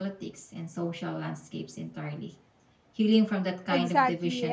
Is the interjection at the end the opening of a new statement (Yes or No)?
Yes